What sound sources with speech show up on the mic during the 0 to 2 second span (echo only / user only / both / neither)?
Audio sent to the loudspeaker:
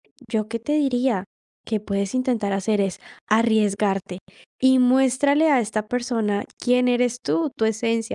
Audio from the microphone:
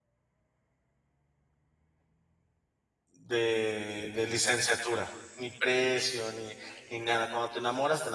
neither